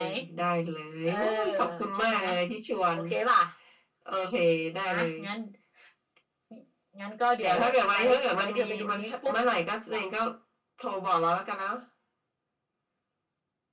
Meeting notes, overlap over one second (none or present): present